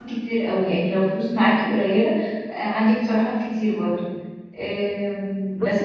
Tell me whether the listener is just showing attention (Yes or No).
Yes